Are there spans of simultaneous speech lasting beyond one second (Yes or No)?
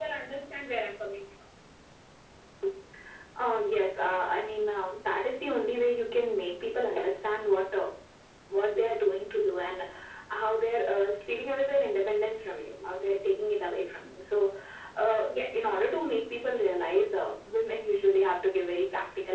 No